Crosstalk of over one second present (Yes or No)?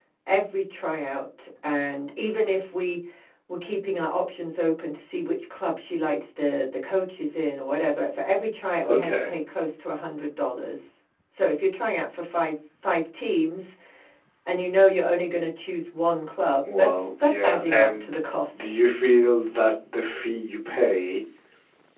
Yes